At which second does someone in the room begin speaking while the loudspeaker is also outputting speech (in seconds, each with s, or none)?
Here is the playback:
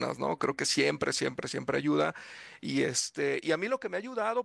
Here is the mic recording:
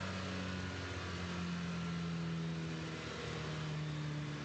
none